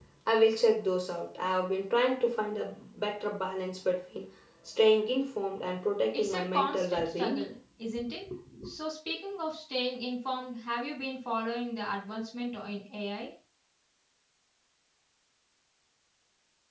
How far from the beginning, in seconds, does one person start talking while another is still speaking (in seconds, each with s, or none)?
6.1 s